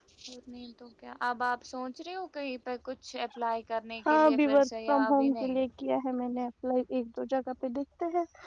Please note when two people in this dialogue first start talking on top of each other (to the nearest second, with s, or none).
4 s